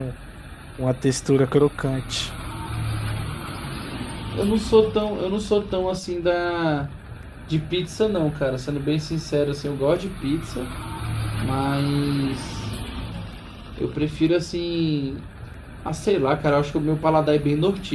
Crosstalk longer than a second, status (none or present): none